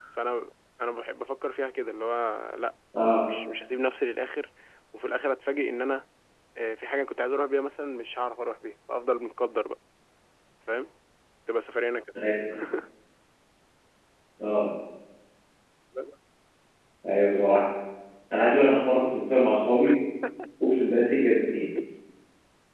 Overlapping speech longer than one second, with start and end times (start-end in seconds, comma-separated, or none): none